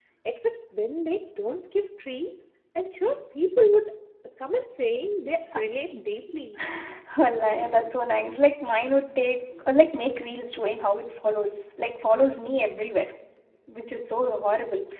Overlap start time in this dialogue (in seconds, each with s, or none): none